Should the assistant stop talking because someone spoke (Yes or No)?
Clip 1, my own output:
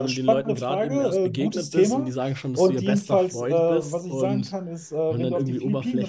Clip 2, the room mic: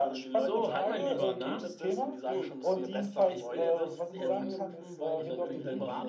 Yes